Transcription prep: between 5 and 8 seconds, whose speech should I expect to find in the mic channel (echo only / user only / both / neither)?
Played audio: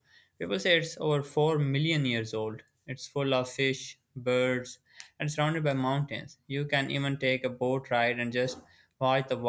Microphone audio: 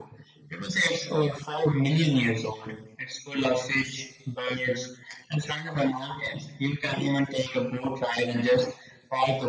echo only